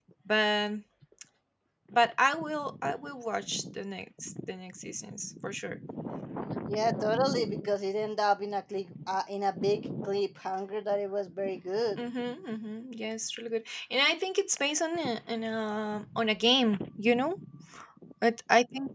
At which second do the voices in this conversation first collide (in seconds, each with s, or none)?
none